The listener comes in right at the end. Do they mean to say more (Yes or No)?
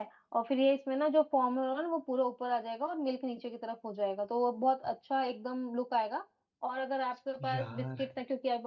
No